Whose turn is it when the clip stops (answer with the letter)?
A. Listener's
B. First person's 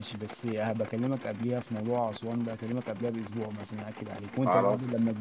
B